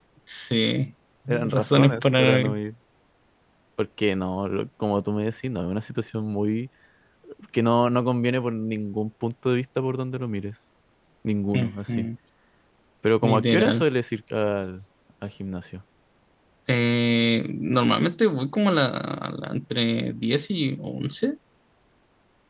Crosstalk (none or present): present